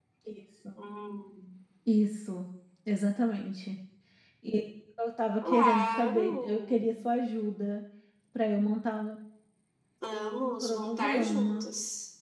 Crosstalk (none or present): present